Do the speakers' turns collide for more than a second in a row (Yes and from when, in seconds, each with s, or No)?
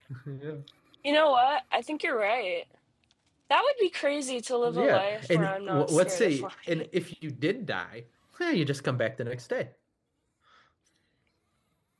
Yes, from 4.7 s